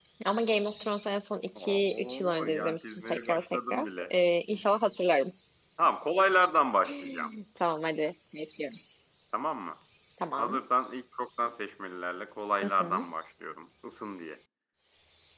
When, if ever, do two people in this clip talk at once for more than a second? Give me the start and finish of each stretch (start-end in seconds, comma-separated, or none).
1.6-4.1